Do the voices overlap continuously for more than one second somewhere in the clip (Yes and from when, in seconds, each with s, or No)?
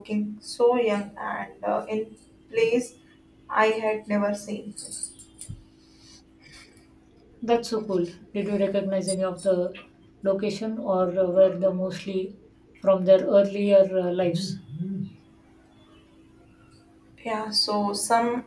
No